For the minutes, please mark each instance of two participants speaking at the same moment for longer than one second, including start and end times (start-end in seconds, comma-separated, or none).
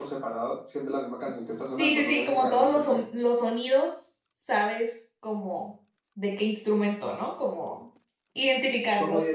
1.8-3.0